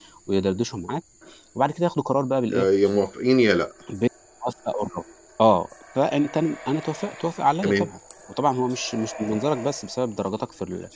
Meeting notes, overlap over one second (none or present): none